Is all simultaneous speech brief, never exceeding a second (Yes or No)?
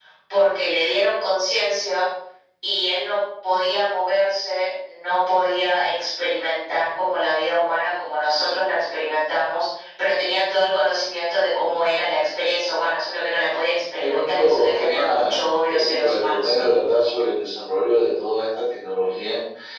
No